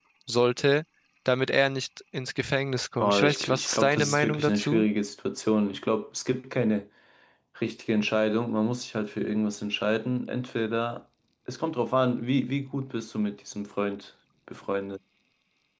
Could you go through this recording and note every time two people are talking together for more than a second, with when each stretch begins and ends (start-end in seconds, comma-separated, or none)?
3.0-4.8